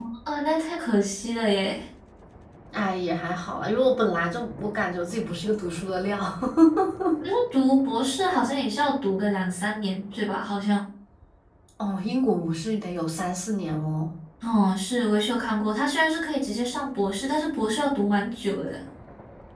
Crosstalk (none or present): none